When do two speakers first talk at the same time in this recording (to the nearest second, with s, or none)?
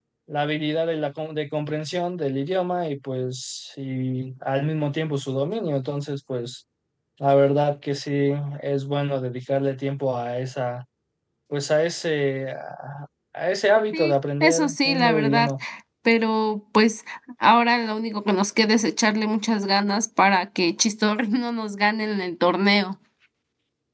14 s